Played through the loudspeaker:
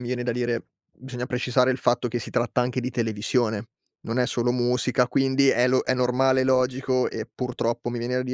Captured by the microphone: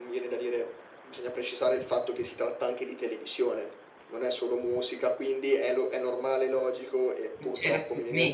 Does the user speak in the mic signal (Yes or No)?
Yes